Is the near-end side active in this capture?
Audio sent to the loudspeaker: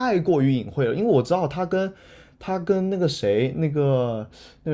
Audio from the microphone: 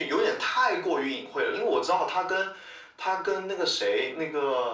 No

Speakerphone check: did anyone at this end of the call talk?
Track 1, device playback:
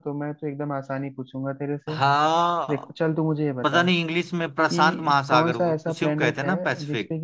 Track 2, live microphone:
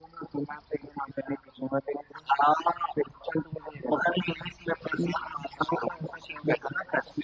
No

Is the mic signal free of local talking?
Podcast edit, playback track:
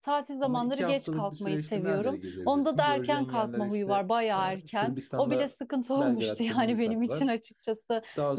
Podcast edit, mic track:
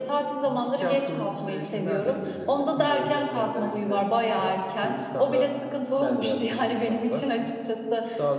Yes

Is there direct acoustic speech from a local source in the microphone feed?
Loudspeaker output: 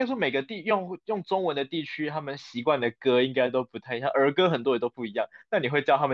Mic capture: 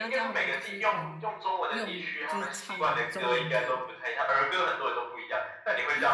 Yes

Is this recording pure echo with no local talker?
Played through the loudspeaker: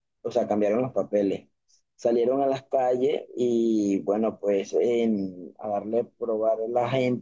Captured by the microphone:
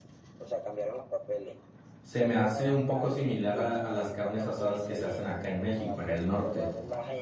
No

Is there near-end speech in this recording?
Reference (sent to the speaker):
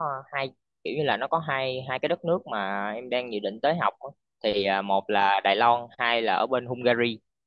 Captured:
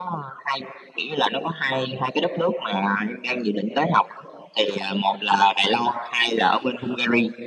No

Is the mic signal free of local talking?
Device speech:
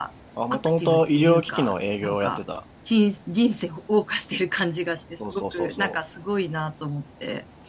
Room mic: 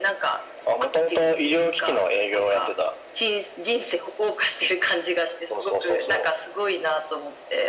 Yes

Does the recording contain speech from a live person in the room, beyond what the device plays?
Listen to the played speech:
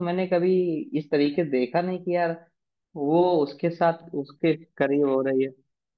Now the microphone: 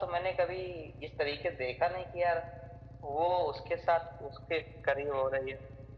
No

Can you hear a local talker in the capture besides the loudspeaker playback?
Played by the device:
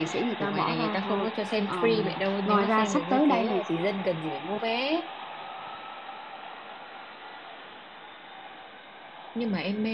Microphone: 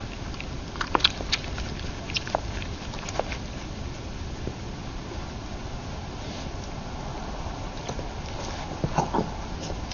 No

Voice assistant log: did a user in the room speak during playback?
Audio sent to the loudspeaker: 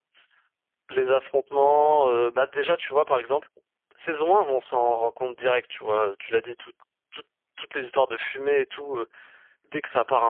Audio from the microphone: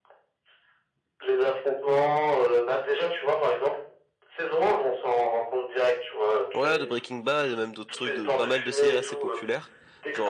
Yes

